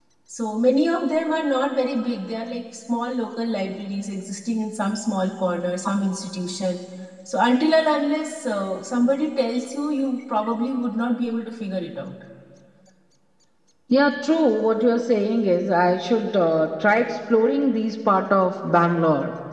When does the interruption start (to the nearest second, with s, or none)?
none